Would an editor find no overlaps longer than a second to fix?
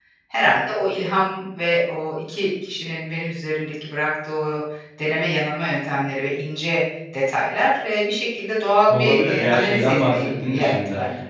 No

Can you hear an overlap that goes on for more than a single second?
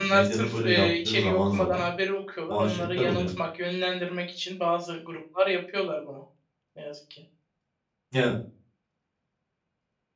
Yes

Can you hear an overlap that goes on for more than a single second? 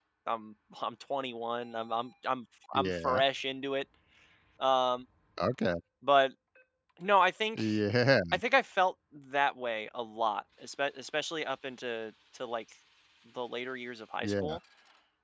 No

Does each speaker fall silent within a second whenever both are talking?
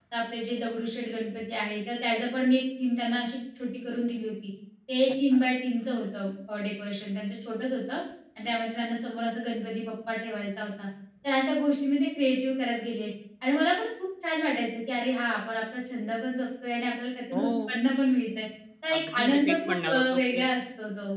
No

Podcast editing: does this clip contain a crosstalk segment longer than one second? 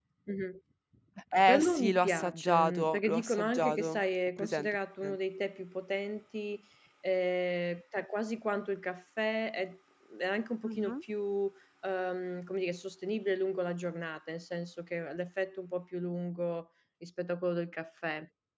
Yes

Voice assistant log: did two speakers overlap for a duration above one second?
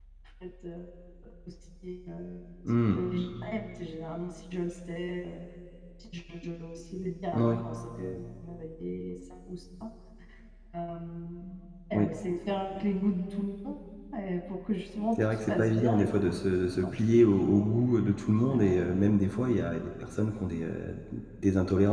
Yes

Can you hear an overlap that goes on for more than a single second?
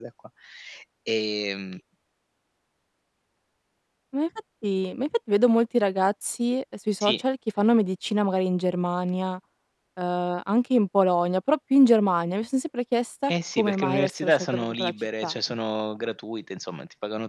Yes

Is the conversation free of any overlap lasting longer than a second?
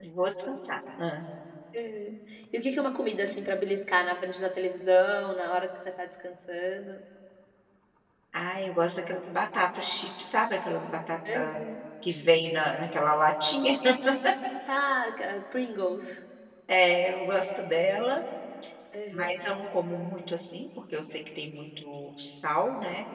Yes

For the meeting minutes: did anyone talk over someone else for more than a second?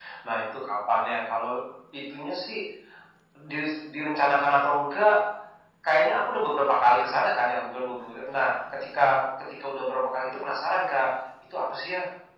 No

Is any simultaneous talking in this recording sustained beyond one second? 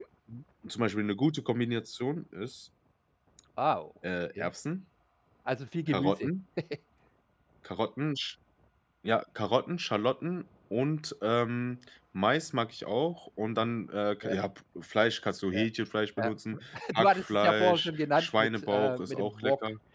Yes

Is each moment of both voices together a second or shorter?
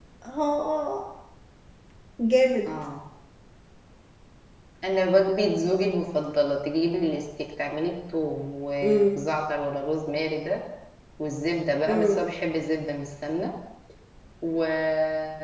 Yes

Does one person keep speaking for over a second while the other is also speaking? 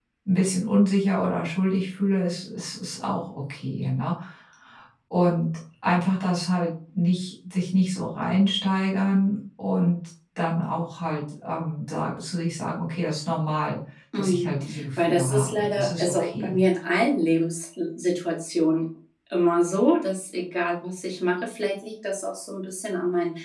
Yes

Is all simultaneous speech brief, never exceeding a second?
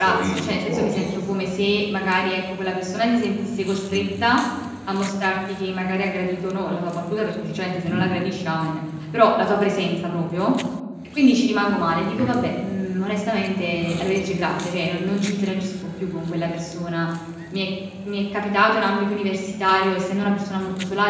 No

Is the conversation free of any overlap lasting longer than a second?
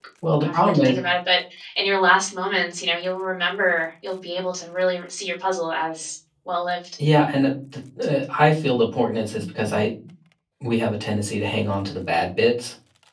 Yes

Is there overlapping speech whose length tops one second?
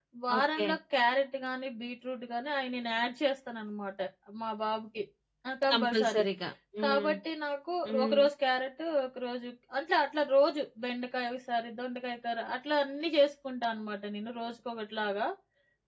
No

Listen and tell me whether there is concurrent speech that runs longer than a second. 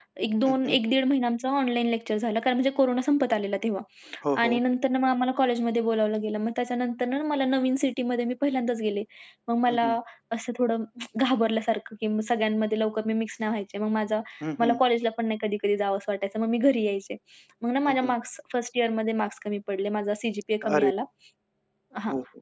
No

